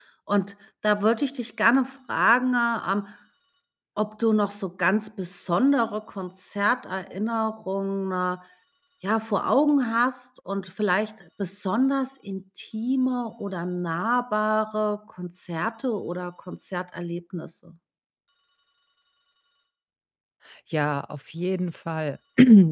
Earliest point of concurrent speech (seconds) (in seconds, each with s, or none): none